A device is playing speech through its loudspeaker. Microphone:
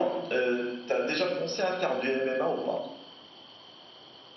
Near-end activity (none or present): none